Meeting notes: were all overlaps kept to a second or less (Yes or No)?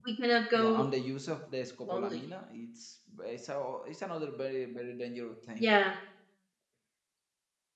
Yes